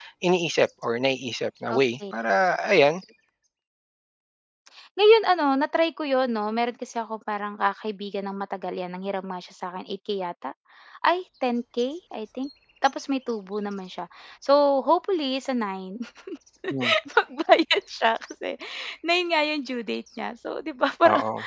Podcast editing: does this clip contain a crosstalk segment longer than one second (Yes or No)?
No